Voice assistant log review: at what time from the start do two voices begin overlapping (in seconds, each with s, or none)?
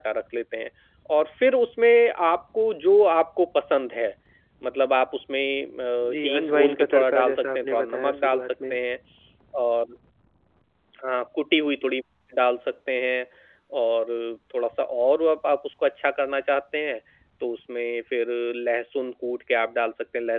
6.0 s